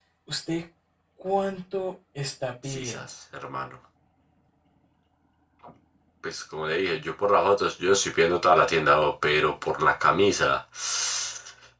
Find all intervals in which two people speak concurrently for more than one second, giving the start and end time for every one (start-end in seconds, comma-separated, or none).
none